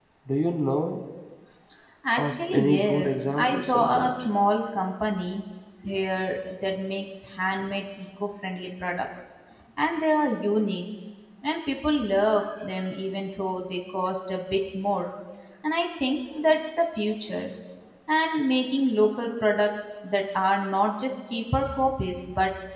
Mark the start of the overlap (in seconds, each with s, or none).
2.2 s